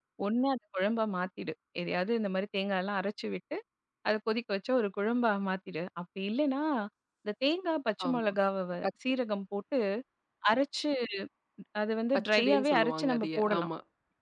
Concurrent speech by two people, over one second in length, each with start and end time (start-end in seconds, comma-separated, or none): 12.3-13.7